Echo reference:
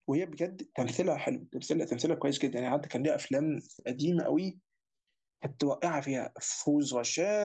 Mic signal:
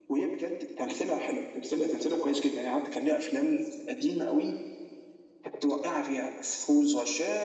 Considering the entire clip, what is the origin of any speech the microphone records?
echo only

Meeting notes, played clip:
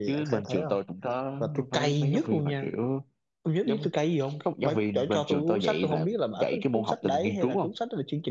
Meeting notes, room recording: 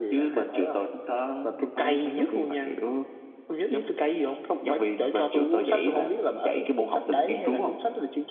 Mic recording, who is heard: echo only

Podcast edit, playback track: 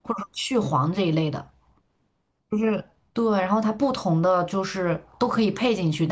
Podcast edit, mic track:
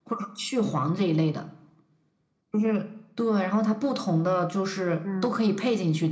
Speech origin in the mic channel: both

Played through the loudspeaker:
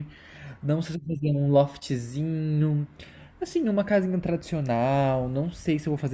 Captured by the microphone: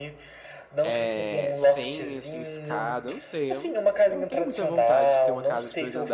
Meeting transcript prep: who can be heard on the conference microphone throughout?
both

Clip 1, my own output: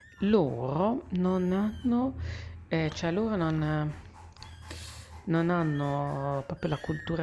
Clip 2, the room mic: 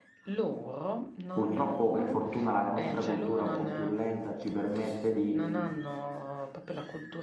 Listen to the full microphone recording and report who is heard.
both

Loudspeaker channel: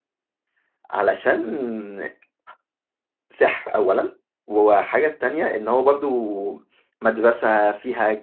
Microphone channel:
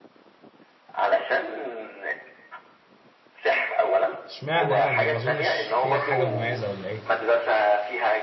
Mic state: both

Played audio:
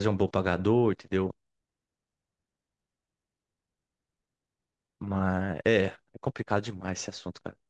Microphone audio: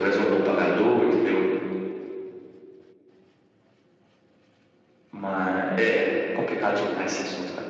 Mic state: echo only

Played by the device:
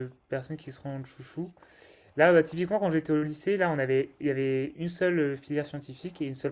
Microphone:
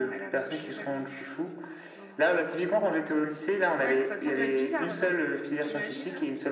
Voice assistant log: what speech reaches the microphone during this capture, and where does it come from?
both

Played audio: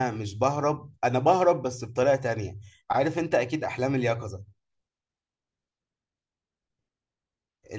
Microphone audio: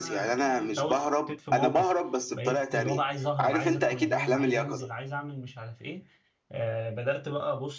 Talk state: both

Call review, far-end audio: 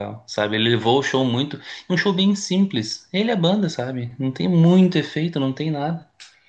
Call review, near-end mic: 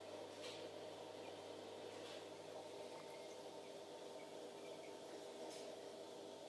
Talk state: neither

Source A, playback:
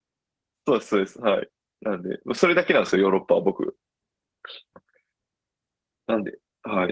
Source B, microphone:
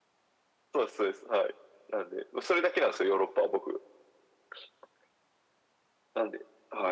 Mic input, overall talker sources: echo only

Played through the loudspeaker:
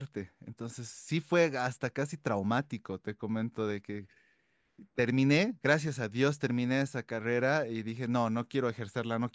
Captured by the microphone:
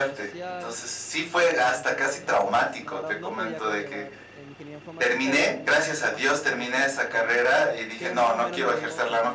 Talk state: both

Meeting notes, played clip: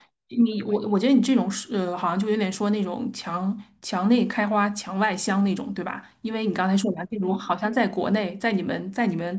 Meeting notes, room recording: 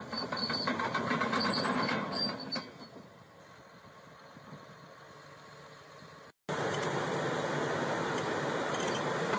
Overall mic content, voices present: neither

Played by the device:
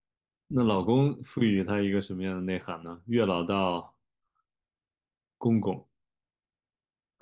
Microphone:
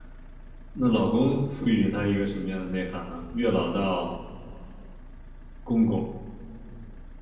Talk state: echo only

